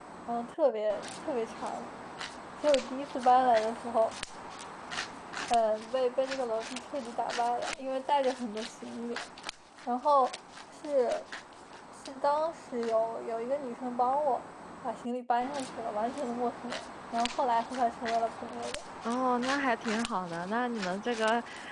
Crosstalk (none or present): none